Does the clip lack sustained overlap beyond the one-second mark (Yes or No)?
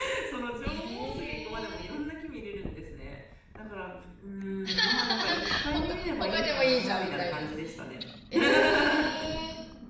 No